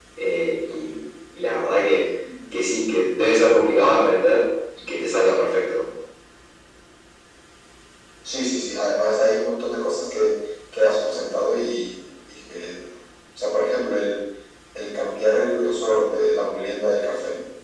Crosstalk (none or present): none